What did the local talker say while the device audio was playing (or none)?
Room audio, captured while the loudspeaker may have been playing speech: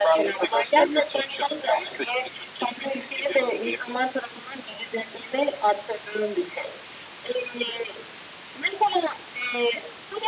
none